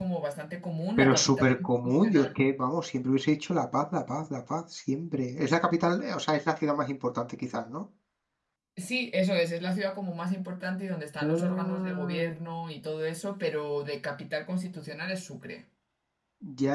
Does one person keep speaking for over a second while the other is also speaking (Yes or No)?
Yes